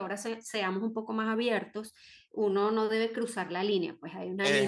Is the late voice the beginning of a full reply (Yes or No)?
No